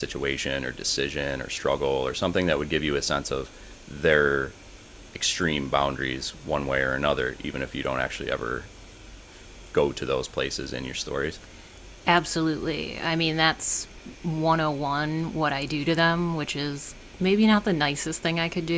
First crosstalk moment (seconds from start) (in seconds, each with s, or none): none